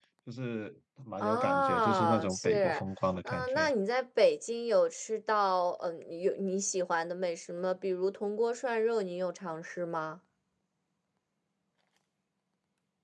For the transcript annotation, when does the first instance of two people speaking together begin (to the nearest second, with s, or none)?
1 s